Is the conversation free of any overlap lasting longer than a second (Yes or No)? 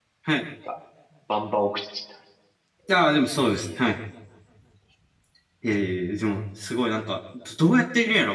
Yes